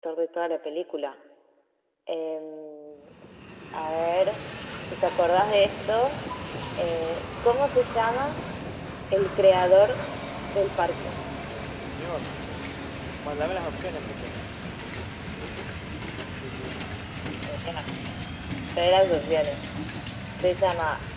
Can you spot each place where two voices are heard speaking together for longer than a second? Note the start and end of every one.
none

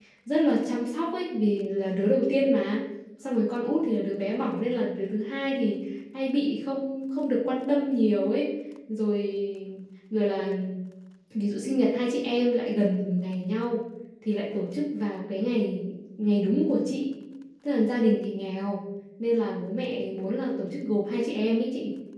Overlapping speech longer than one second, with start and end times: none

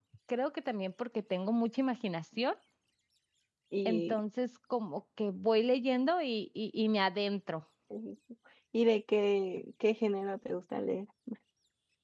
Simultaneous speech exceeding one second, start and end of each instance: none

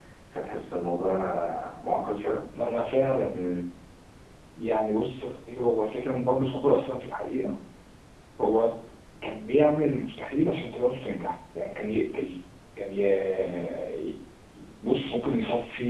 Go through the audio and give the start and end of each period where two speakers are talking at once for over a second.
none

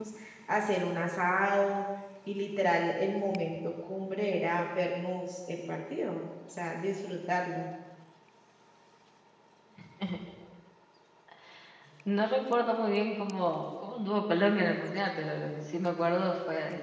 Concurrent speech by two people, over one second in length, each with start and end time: none

